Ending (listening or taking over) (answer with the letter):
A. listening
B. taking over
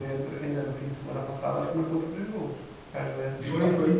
B